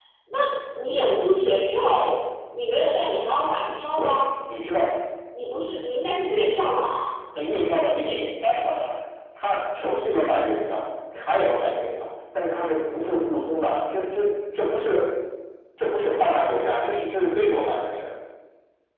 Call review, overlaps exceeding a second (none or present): none